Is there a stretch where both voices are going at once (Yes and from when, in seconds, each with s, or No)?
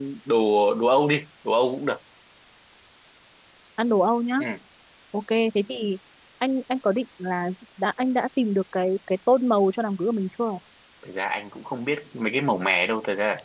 No